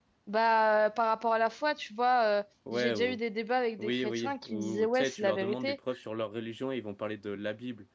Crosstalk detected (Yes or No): Yes